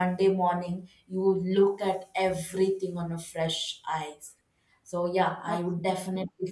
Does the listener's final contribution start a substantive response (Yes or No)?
No